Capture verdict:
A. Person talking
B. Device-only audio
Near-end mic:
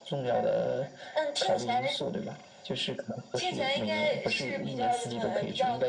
B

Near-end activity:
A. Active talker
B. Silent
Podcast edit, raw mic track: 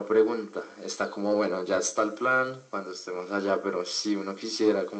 B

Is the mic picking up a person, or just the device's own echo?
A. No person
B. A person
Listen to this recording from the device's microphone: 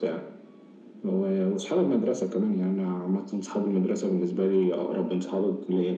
A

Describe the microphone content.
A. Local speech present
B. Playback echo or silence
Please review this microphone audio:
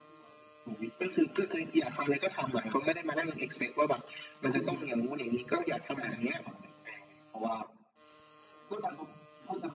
B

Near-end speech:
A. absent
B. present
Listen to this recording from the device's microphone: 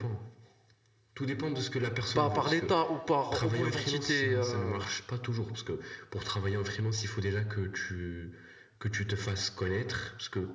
B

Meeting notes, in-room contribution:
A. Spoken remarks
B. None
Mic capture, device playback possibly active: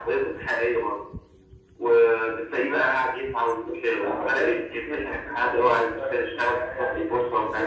B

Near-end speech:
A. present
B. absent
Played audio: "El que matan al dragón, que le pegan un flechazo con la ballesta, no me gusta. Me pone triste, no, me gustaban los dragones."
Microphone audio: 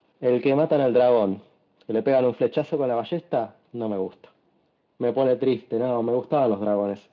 B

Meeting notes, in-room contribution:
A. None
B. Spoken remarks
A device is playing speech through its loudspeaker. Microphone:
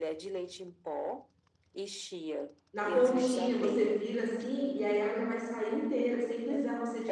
B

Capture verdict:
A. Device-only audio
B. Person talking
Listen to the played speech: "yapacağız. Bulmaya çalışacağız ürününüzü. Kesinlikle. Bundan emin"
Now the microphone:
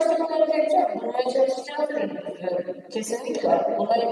A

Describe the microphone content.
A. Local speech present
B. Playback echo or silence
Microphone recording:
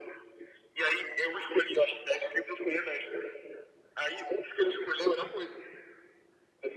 B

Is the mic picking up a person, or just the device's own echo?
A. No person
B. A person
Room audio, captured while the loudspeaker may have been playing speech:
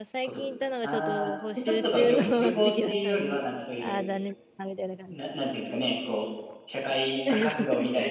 B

